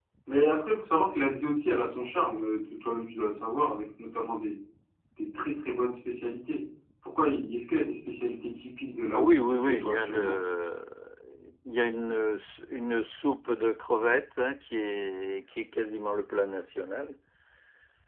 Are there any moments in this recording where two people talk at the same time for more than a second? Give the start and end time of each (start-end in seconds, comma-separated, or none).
9.1-10.4